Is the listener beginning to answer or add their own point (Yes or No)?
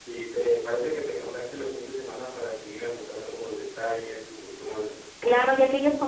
Yes